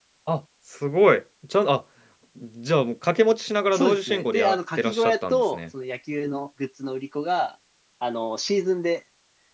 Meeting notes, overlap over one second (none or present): present